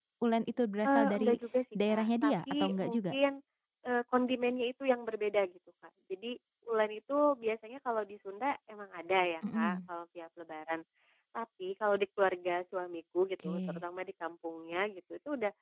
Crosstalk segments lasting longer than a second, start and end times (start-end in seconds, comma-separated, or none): 1.9-3.1